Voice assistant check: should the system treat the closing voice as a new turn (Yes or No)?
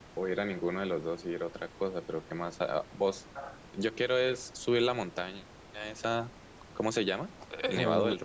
Yes